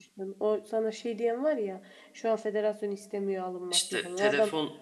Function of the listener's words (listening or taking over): taking over